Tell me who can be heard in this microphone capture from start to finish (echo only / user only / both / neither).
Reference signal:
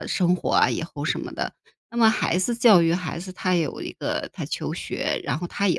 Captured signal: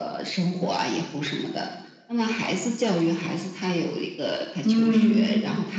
both